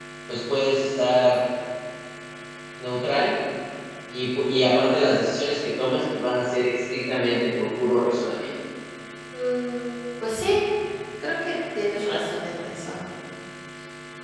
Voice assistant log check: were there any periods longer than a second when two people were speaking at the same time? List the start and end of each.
none

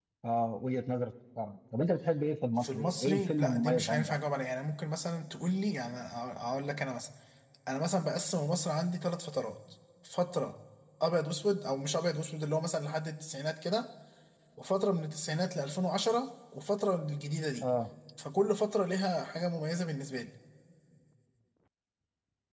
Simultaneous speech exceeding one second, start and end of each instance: 2.6-4.2

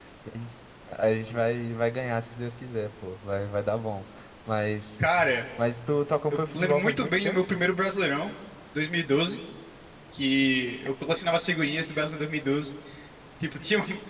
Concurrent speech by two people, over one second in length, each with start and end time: 6.3-7.6

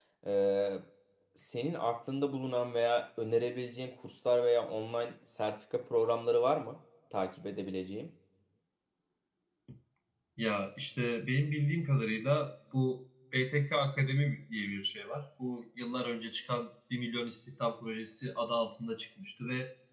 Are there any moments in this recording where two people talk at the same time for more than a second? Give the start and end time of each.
none

